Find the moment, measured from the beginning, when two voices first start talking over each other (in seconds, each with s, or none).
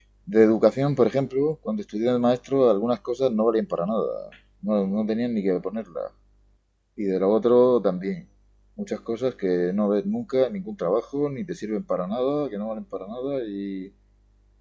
none